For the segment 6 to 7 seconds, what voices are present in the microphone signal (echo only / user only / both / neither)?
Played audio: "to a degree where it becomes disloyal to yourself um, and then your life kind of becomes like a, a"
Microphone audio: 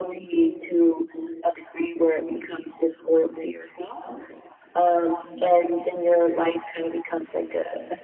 echo only